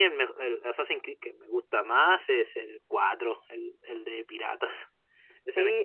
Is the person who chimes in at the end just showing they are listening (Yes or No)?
No